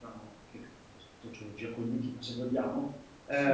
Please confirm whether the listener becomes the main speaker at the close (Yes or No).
No